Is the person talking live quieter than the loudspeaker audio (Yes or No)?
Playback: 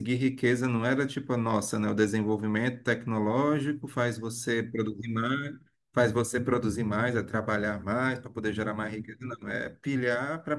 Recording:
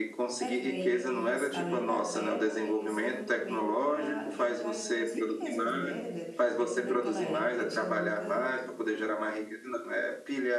Yes